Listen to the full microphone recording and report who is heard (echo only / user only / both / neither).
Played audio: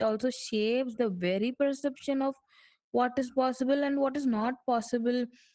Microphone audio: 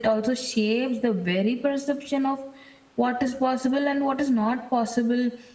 echo only